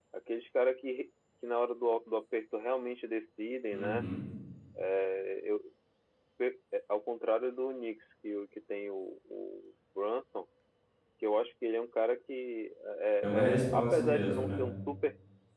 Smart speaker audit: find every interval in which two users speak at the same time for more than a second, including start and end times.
13.2-14.6

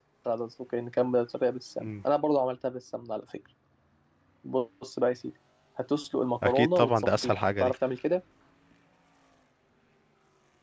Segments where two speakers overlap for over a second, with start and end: 6.4-7.7

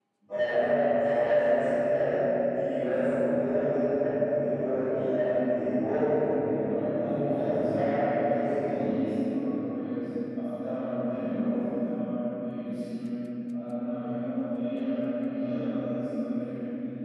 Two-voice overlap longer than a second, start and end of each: 6.5-8.9

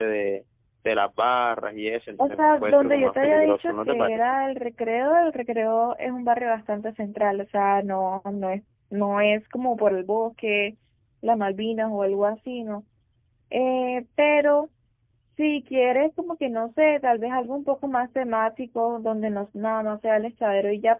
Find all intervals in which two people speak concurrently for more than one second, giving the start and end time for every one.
2.2-4.3

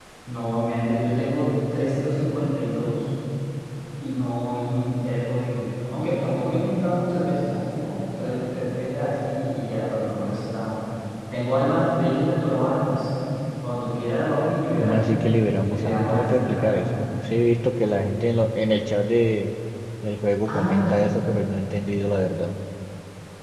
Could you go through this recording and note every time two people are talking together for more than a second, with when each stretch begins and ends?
14.8-16.8

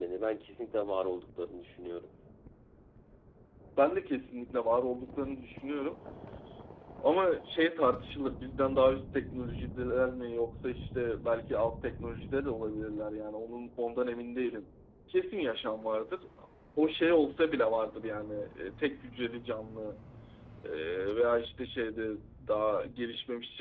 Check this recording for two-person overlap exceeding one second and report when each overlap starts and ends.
none

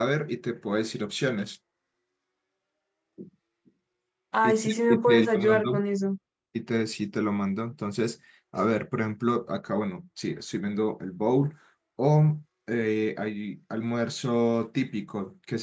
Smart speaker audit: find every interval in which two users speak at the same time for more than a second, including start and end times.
4.4-5.8

